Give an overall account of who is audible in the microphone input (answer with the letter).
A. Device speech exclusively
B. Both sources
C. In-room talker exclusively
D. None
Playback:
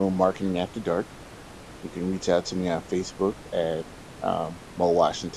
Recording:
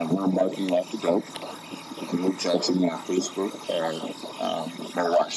A